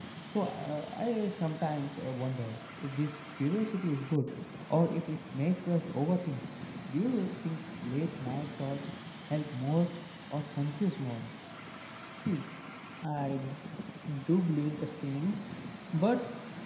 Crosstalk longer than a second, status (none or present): none